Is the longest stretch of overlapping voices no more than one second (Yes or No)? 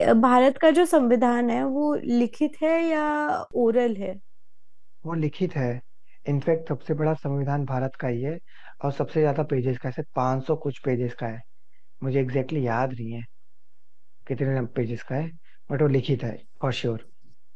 Yes